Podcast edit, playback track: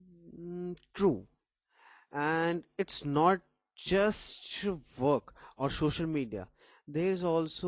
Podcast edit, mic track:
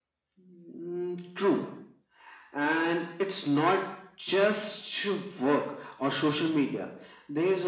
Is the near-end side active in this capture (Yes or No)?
No